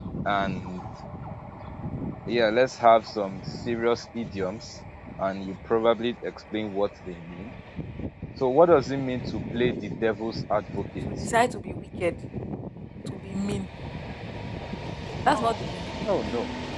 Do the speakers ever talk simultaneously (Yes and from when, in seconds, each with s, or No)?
No